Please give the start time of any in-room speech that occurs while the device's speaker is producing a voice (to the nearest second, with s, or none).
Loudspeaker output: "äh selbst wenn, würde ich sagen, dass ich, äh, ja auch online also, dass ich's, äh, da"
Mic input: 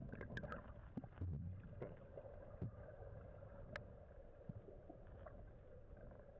none